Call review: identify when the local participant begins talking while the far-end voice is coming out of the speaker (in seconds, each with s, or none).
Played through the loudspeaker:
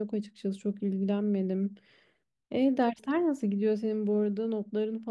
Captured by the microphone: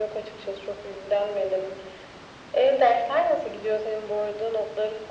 none